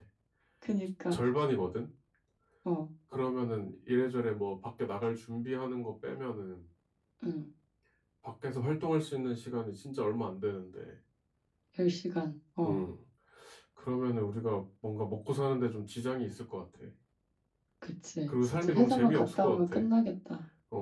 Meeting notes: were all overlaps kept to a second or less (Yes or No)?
No